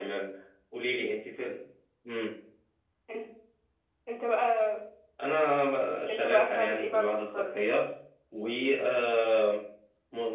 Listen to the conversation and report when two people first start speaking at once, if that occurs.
6.1 s

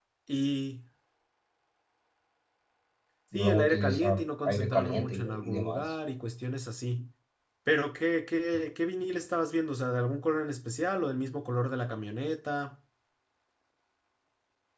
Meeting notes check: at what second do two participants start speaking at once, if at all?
3.3 s

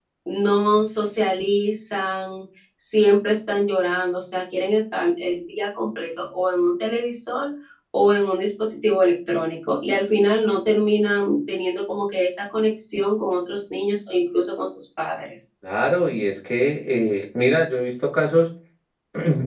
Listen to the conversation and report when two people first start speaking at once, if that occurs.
none

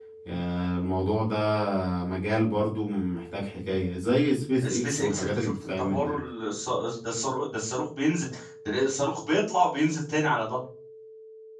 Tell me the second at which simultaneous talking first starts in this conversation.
4.6 s

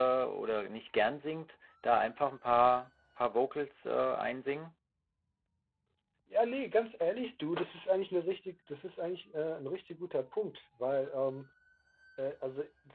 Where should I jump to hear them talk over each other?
none

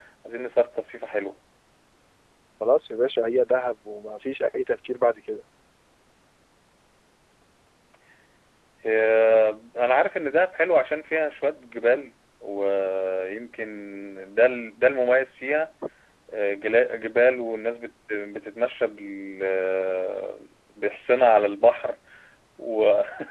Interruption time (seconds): none

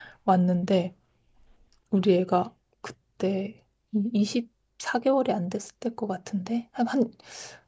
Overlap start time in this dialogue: none

